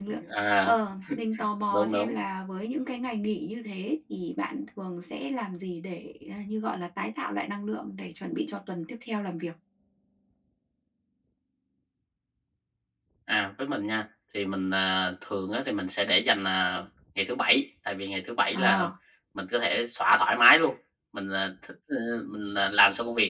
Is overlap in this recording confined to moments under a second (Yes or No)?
Yes